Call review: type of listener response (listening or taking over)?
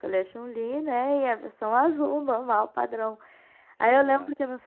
listening